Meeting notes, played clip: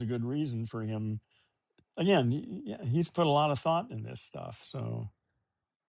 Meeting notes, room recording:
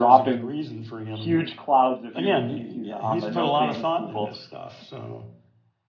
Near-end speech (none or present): present